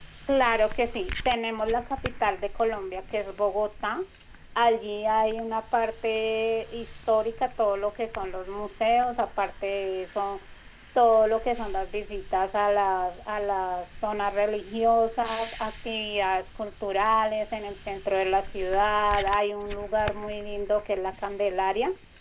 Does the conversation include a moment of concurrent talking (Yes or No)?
No